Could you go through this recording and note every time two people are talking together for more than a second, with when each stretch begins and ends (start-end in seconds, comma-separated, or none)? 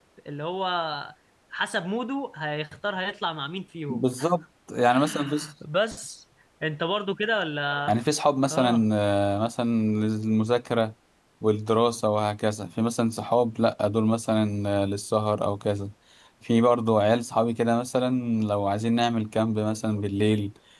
none